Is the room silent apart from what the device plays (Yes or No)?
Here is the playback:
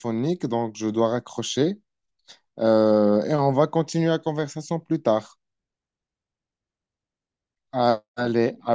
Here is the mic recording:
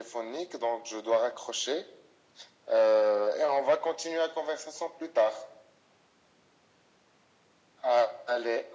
Yes